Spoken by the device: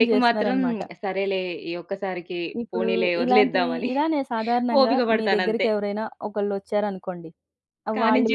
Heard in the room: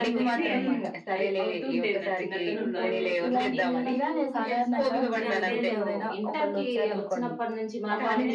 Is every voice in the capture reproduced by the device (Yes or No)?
No